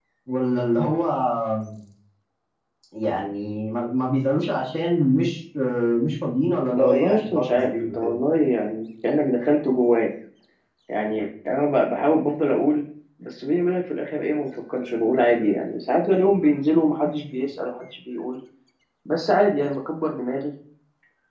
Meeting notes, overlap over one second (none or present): present